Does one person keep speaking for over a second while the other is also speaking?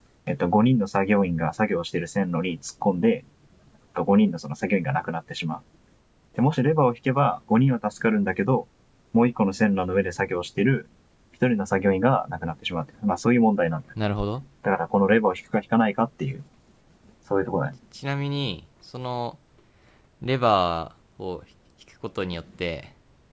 No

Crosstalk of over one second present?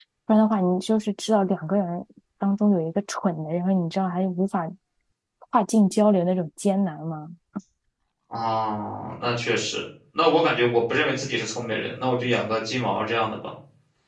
No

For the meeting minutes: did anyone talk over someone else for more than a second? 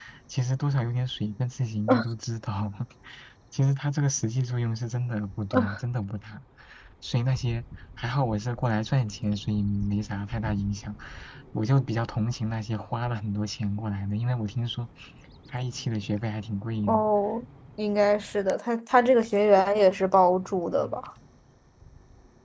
No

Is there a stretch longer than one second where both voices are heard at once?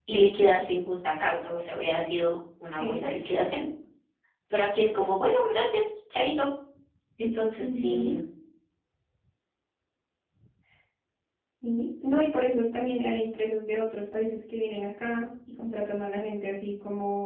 No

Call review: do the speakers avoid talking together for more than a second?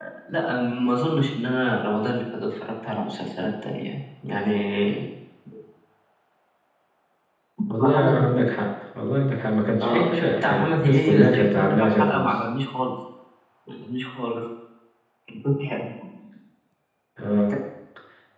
No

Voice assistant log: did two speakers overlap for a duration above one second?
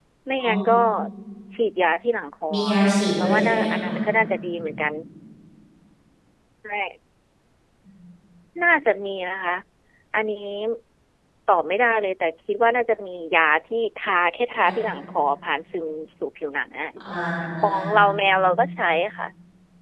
Yes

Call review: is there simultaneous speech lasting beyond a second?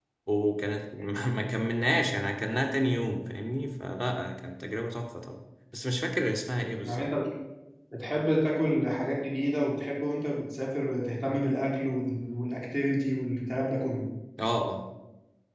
No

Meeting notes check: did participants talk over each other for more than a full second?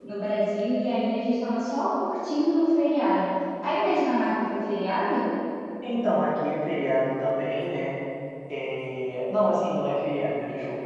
No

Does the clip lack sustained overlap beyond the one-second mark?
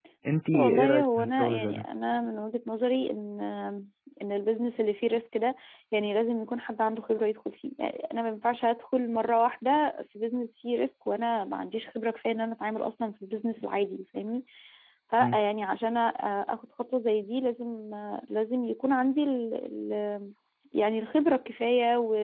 No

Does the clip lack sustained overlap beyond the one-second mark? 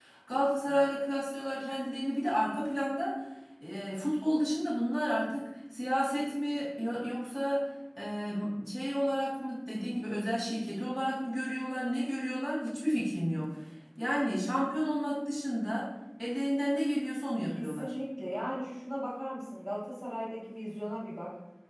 Yes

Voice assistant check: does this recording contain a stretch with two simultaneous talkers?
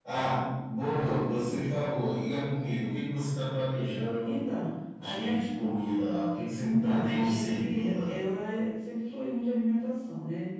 Yes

